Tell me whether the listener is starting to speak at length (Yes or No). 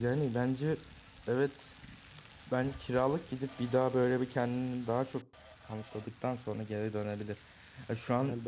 No